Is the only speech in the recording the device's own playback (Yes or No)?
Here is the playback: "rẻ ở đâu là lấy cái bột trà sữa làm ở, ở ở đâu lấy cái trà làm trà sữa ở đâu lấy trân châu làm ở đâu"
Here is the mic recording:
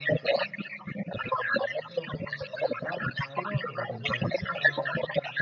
No